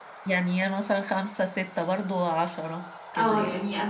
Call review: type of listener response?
taking over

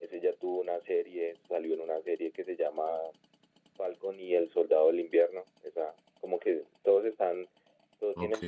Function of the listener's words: listening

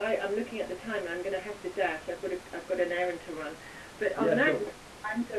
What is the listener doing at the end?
listening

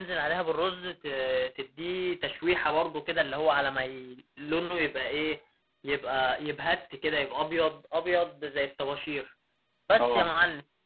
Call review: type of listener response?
listening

